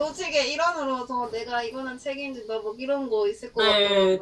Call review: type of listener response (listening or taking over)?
taking over